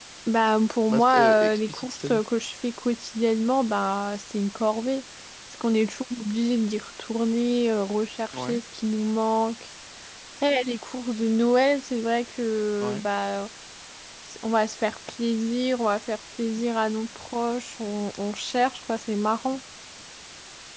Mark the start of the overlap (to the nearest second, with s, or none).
1 s